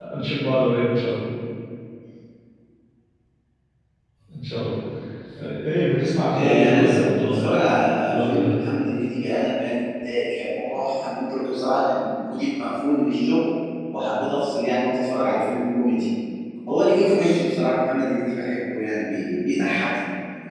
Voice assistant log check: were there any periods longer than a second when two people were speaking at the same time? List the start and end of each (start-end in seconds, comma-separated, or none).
6.3-7.6